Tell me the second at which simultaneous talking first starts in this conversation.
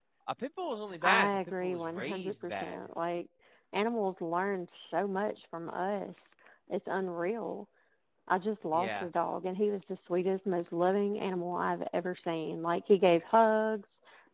1.0 s

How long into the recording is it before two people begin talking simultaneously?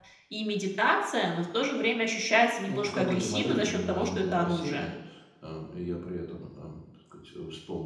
2.6 s

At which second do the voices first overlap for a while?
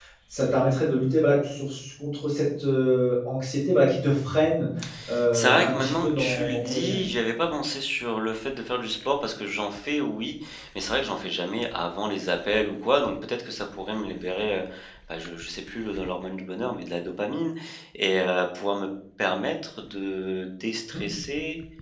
5.3 s

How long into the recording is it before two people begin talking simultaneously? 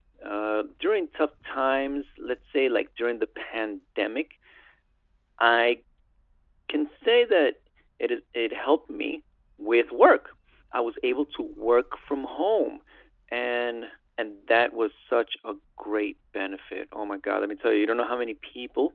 none

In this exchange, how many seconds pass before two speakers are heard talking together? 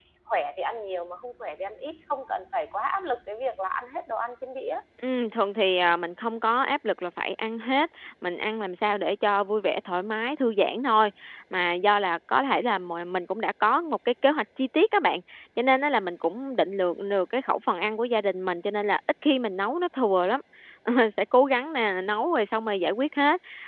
none

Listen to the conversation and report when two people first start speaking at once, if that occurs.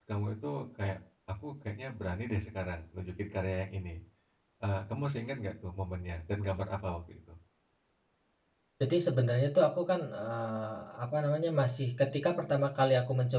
none

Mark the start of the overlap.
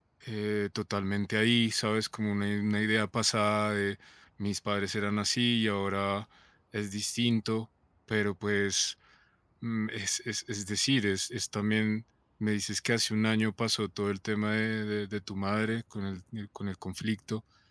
none

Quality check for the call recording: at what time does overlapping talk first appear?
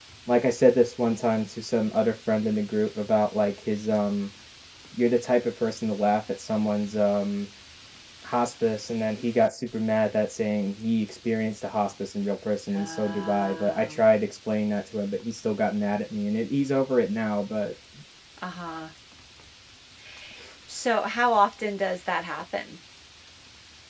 12.7 s

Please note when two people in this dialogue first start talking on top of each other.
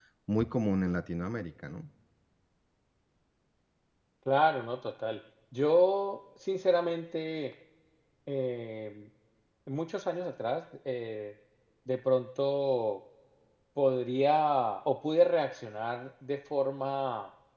none

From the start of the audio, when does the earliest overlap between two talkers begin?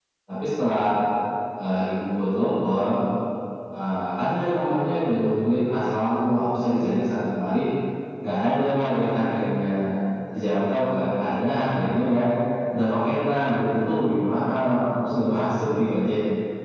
none

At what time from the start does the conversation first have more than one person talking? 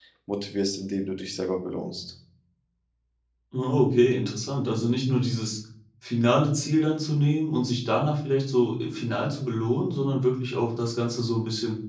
none

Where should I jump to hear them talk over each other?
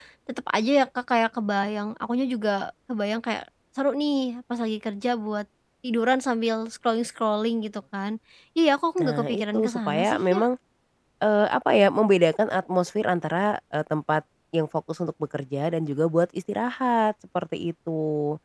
9.0 s

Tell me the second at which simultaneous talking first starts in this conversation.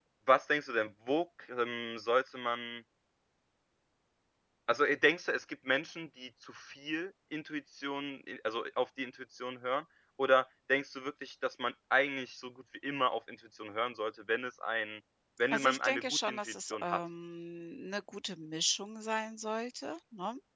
15.5 s

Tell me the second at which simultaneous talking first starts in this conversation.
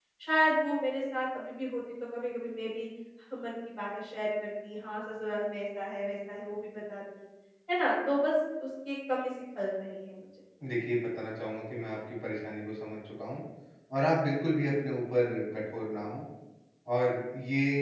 none

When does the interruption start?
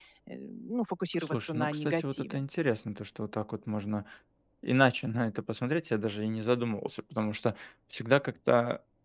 1.2 s

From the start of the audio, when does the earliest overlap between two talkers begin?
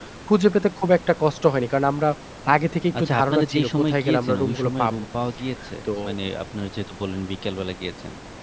3.0 s

